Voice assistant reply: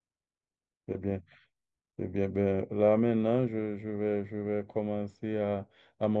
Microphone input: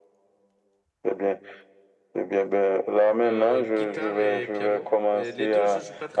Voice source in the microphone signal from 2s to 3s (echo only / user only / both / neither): echo only